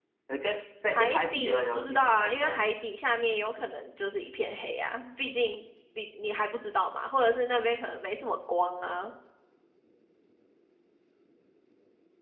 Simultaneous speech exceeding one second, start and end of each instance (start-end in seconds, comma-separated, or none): 0.9-2.7